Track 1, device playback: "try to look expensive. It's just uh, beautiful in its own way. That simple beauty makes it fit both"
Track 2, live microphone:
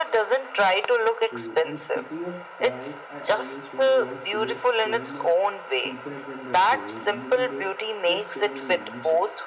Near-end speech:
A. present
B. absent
A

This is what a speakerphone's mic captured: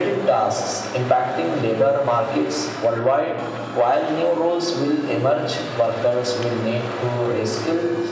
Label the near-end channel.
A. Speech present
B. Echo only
B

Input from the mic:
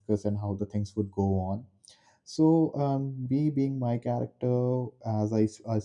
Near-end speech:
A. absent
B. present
B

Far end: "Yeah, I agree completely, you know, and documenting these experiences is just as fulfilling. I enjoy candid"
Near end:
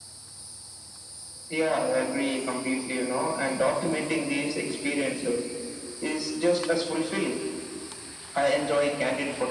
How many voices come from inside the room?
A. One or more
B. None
B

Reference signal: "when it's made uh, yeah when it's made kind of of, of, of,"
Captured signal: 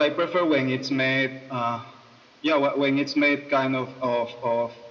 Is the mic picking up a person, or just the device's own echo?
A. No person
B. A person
A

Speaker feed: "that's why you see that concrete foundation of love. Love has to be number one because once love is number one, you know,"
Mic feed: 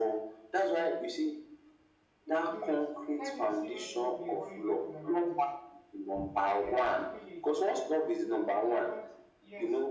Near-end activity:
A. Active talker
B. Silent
A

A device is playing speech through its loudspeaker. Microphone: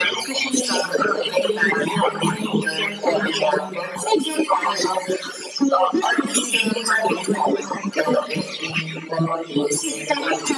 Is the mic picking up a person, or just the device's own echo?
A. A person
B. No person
B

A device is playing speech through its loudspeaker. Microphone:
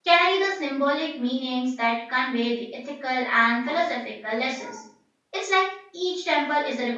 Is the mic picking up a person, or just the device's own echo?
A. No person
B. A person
B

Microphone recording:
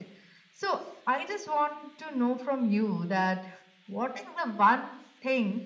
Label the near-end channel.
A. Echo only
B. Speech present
A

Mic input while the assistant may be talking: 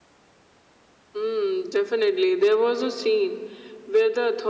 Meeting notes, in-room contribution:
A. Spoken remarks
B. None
B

